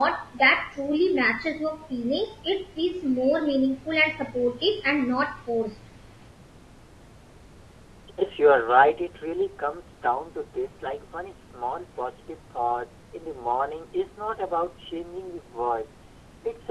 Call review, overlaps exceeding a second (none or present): none